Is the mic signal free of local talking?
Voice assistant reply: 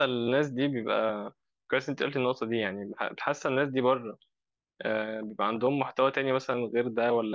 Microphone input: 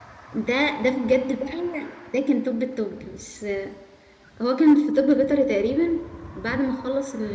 No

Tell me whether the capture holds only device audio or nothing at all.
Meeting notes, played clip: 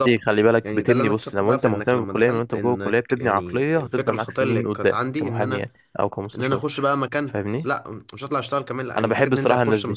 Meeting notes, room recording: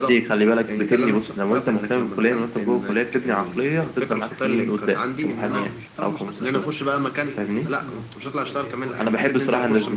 No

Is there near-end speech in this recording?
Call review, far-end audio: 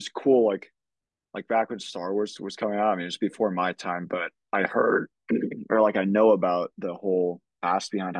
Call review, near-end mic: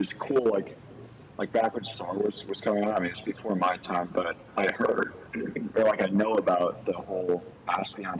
No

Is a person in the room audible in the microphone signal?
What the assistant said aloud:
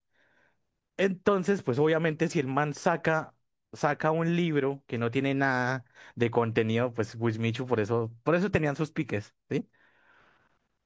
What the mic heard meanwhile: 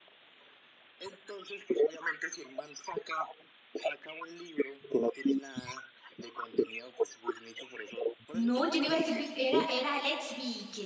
Yes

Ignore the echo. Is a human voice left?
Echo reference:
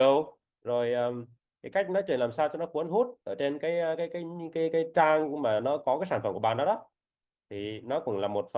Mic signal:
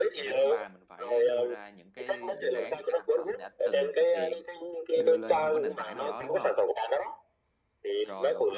Yes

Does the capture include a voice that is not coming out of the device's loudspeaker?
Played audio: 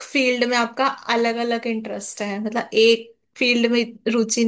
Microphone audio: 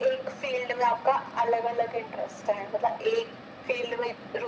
No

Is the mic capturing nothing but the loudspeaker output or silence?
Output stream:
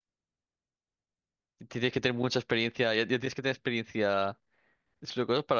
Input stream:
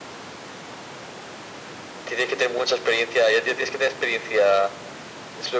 Yes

